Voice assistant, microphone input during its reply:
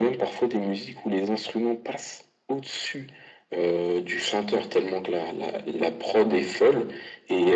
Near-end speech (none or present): none